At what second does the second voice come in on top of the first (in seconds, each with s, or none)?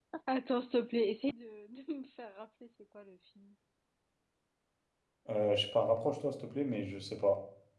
none